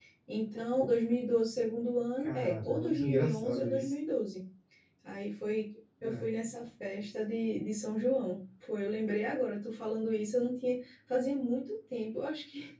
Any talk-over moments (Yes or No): Yes